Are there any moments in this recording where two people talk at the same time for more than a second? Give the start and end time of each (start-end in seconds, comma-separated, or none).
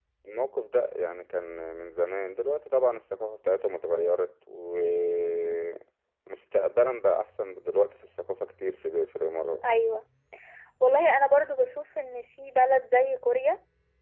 none